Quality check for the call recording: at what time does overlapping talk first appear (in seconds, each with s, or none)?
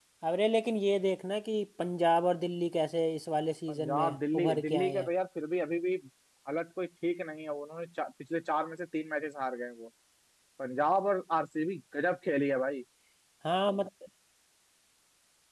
3.7 s